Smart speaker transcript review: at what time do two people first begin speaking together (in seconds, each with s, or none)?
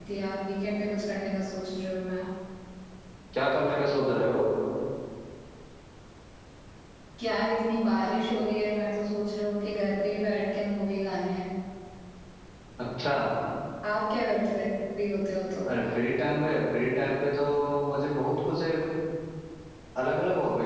none